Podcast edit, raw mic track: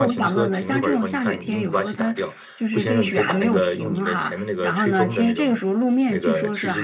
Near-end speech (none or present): present